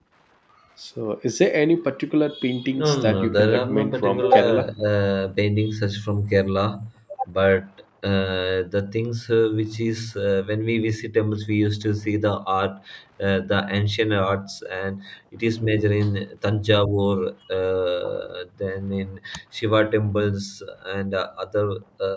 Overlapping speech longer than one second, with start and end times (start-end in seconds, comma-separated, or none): 2.8-4.7